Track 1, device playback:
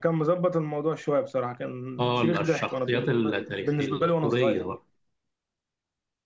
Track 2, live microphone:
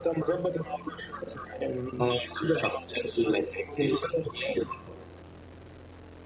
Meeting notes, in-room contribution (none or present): none